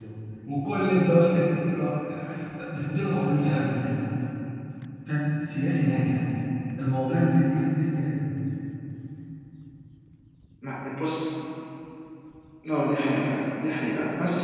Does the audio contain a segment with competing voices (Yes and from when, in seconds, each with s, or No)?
No